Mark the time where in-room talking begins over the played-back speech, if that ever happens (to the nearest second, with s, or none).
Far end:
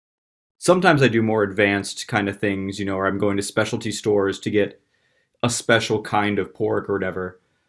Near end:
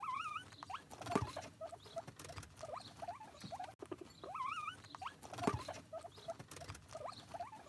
none